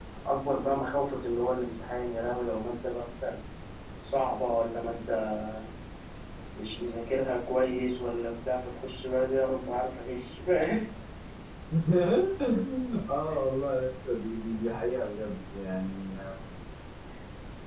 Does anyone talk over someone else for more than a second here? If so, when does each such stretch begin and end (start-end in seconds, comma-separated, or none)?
none